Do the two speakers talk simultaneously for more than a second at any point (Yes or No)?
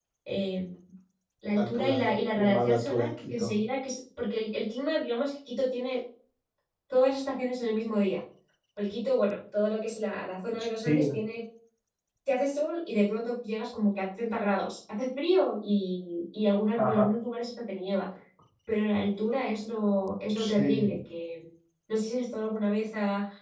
Yes